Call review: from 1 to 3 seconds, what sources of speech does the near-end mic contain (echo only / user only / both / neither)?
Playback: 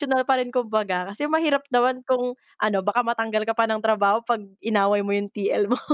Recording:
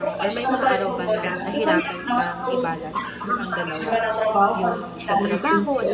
both